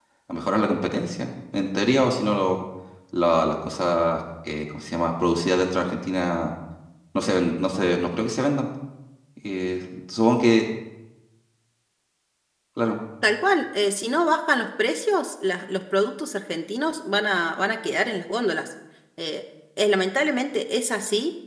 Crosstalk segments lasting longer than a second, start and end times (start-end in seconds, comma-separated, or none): none